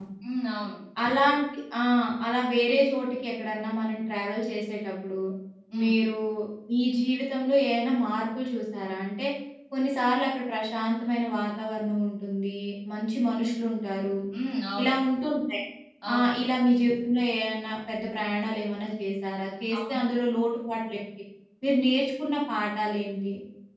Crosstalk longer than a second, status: none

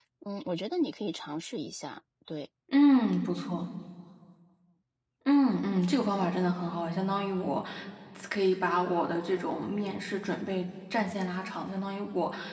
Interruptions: none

